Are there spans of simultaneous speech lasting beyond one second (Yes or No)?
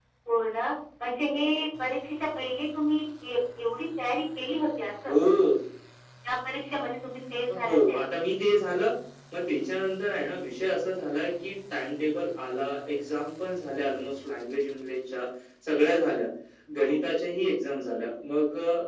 No